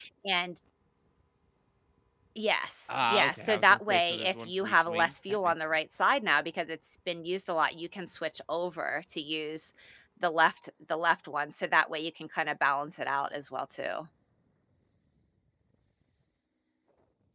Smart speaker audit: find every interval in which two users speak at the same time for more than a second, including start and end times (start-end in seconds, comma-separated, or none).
2.9-5.5